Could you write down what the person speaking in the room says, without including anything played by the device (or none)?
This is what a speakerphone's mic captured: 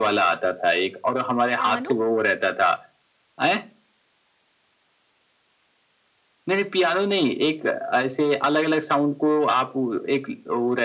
पियानो?